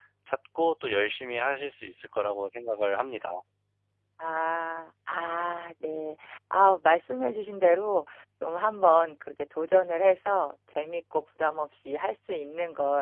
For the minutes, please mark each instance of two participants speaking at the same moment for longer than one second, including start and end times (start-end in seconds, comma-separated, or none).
none